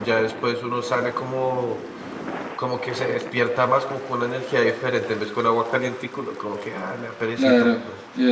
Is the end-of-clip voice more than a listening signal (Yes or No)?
Yes